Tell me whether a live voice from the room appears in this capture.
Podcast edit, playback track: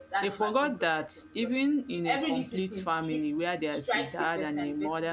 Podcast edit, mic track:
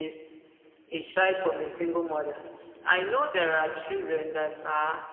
Yes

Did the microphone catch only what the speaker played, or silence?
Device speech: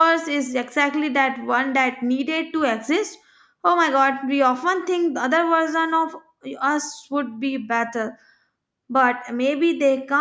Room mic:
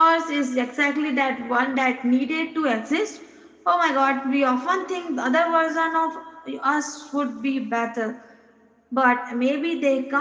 Yes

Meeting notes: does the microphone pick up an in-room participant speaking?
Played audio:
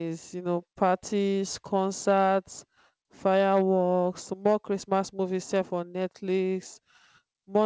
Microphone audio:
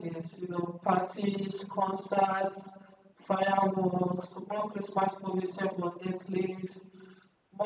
No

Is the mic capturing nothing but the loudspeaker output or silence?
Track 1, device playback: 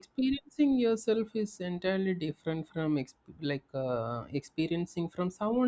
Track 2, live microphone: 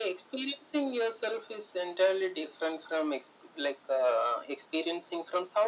Yes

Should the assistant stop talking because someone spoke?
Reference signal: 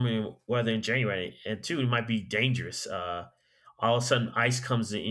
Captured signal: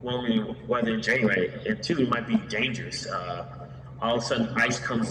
No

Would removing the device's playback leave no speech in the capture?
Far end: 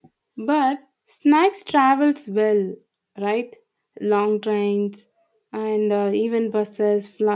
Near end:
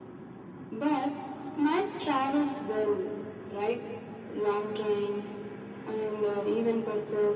Yes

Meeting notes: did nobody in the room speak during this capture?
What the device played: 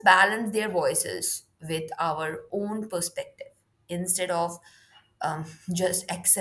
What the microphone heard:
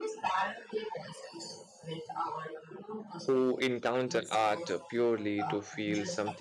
No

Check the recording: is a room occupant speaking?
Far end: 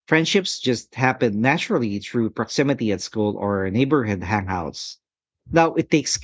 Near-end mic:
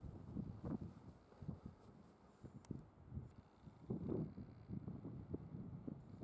No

